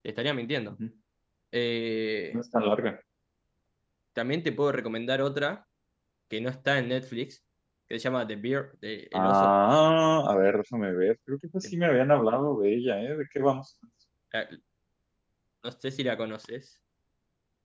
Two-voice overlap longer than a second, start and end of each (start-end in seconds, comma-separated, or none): none